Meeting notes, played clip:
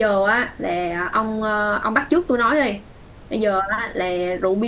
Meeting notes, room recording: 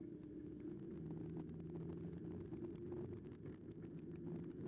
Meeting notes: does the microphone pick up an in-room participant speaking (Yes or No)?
No